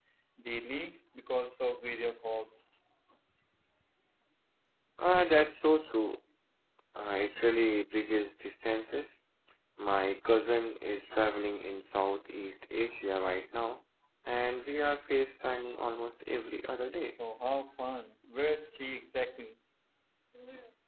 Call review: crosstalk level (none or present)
none